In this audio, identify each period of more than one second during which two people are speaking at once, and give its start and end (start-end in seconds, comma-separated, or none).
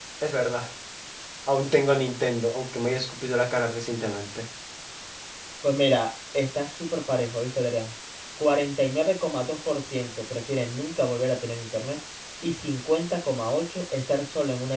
none